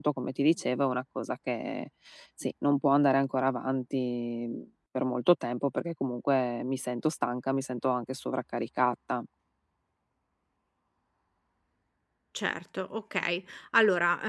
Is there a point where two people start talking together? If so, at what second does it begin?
none

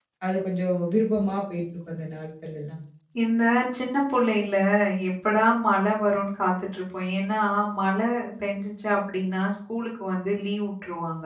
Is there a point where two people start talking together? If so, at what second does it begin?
none

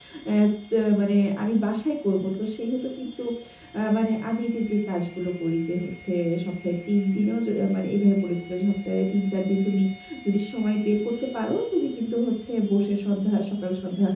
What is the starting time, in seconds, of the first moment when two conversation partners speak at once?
none

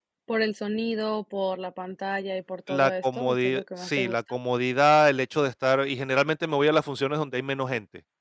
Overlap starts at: 3 s

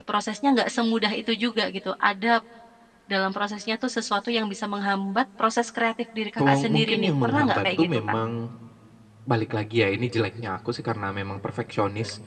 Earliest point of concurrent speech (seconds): 6 s

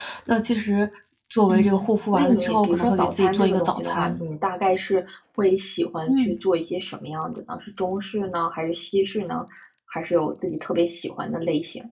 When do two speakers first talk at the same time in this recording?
1 s

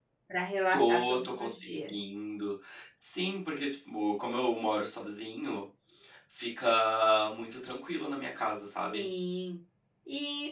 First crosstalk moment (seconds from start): 1 s

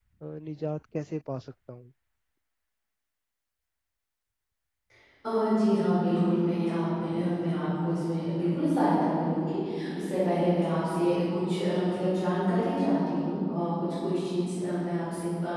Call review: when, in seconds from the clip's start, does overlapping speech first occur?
none

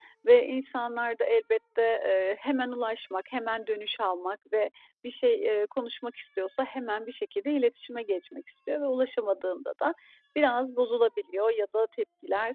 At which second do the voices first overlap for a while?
none

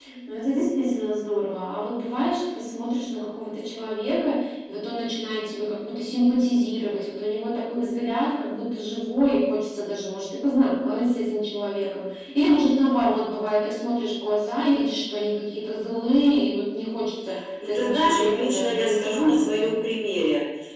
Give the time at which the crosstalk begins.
18 s

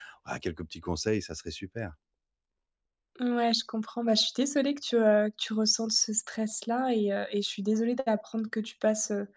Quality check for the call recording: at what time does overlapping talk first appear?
none

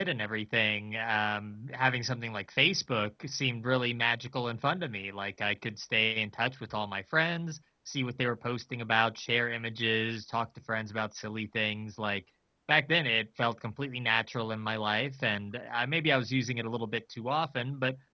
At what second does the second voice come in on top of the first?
none

